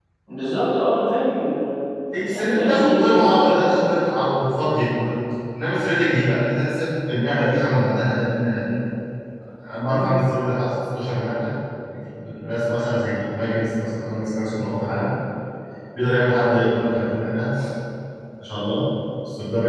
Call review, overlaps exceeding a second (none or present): present